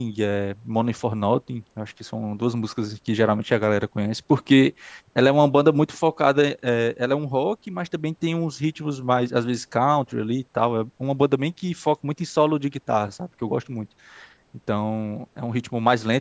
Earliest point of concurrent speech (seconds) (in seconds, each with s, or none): none